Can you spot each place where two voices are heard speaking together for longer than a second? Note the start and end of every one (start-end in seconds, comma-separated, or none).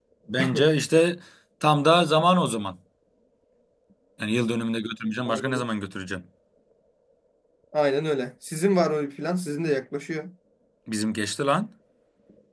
none